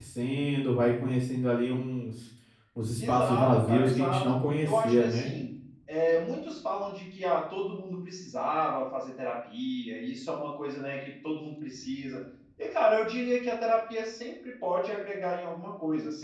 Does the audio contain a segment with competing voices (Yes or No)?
Yes